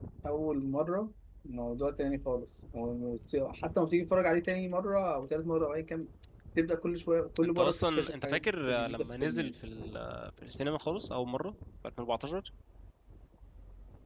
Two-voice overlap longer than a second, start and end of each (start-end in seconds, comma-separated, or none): 7.4-9.5